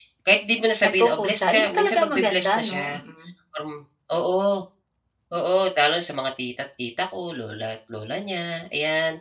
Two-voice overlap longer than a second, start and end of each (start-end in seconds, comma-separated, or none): 0.8-2.8